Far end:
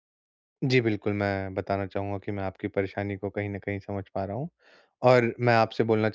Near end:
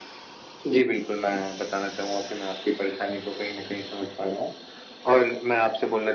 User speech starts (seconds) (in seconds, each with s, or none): none